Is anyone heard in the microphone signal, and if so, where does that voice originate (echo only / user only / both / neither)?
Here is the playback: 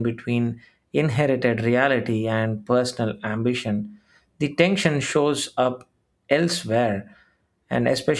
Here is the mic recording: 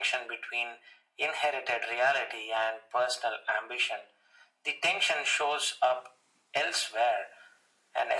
echo only